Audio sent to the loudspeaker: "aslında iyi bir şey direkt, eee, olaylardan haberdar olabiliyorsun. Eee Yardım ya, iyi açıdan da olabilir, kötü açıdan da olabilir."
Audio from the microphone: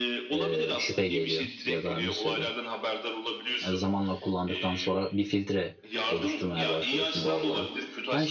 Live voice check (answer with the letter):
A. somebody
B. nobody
A